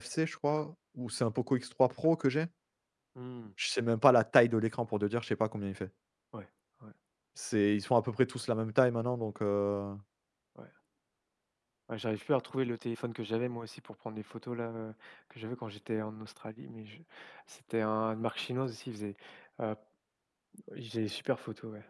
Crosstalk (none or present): none